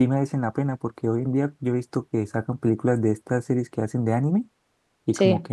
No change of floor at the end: Yes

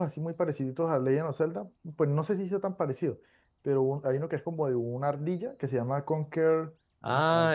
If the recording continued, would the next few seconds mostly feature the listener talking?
Yes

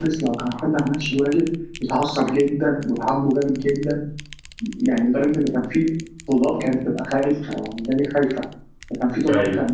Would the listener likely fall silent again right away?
Yes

